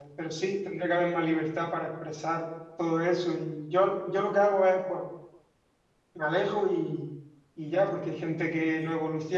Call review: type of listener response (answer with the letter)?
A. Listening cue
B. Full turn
A